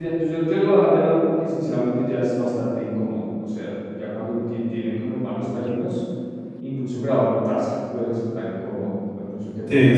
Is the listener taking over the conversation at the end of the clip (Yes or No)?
Yes